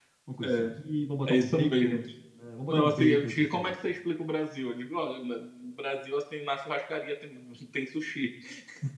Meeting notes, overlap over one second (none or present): present